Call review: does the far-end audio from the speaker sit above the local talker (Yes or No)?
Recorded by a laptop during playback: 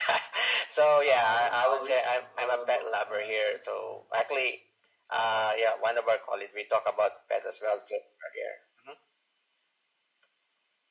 Yes